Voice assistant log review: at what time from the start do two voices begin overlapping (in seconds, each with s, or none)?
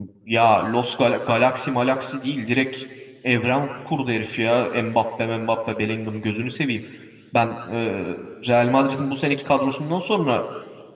none